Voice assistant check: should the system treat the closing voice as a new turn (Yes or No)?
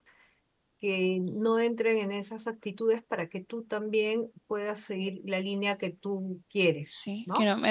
Yes